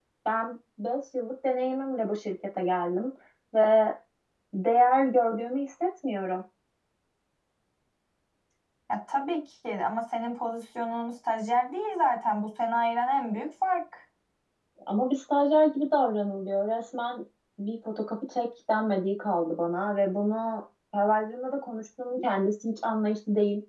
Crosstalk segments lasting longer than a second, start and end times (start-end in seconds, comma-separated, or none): none